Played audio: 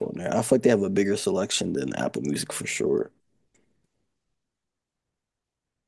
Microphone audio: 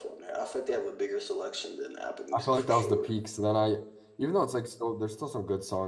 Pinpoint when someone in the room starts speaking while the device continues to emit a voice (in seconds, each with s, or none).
2.3 s